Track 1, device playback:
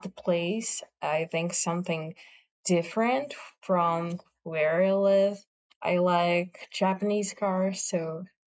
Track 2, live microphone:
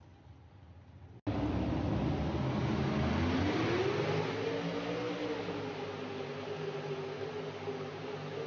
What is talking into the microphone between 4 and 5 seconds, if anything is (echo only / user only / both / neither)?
neither